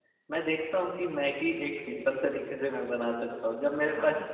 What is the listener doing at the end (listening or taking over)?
listening